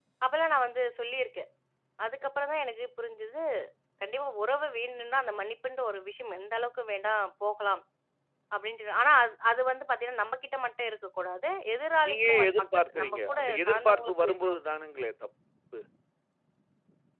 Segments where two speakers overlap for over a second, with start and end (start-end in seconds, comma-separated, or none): 12.1-14.6